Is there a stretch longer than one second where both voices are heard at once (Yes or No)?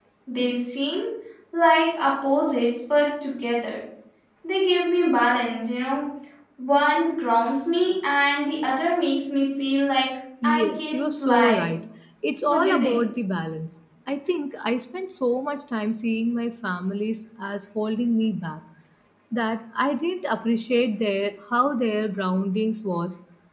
Yes